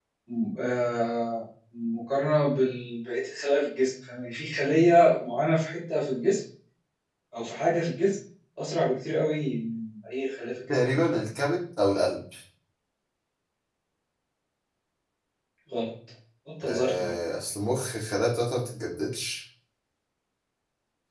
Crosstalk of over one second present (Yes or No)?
No